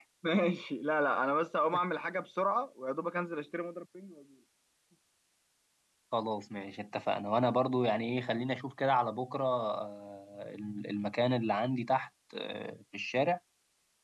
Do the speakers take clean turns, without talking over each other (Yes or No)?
Yes